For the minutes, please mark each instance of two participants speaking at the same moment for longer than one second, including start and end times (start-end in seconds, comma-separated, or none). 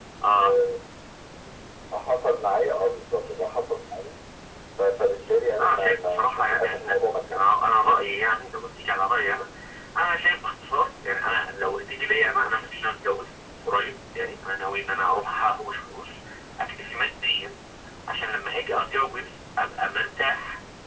5.6-7.5